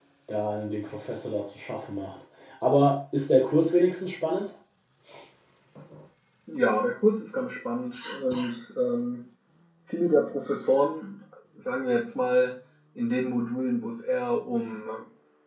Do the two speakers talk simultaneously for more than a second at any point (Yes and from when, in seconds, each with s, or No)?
No